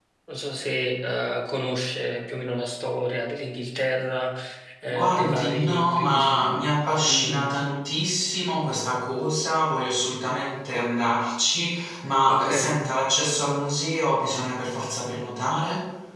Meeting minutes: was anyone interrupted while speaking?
Yes, from 5.0 s

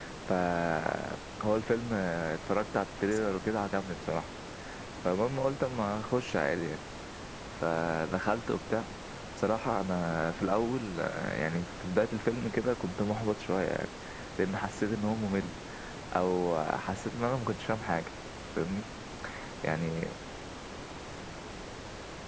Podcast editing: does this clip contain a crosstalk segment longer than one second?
No

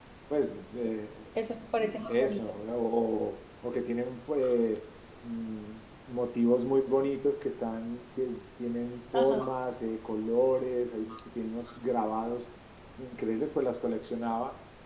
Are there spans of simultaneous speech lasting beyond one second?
No

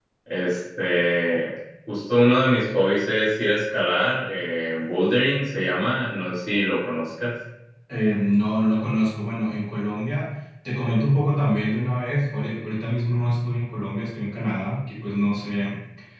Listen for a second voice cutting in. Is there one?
No

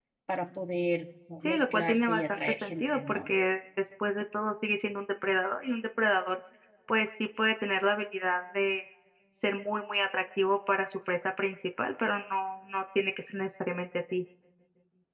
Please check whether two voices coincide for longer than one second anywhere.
Yes, from 1.4 s

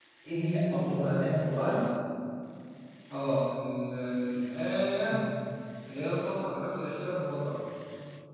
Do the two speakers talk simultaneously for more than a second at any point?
Yes, from 0.6 s

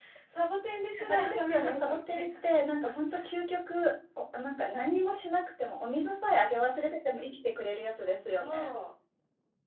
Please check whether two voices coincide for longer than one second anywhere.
Yes, from 1.1 s

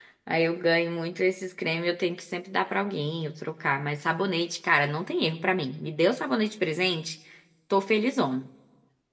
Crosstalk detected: No

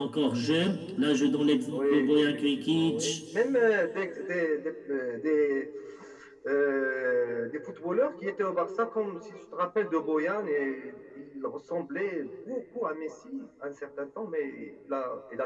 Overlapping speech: Yes, from 1.7 s

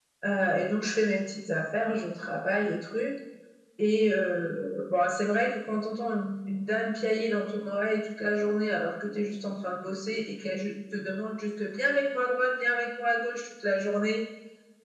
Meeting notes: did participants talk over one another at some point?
No

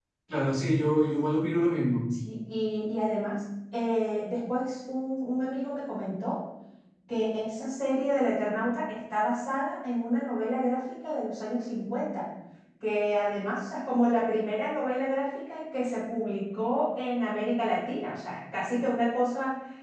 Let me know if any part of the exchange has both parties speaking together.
No

